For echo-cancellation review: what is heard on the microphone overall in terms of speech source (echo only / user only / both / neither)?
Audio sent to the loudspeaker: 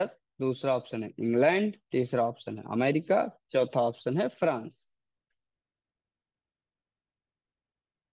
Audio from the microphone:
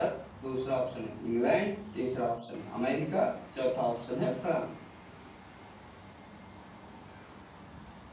echo only